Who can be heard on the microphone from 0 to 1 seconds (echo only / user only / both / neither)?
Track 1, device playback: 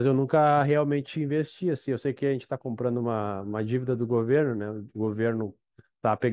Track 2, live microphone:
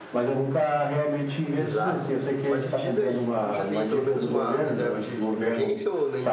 echo only